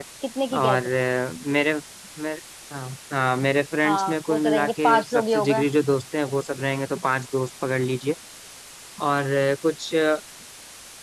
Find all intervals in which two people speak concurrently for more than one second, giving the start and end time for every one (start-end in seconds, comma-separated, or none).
3.8-5.6